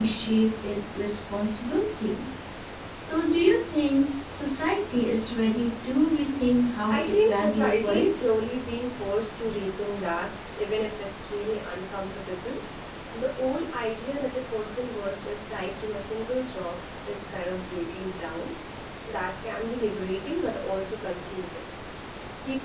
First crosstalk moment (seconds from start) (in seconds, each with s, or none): 6.9 s